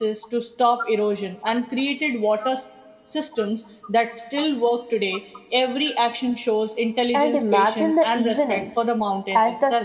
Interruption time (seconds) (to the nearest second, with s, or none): 7 s